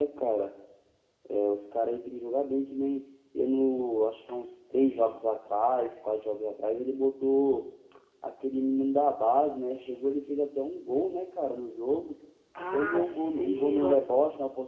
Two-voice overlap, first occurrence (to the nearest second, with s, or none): 13 s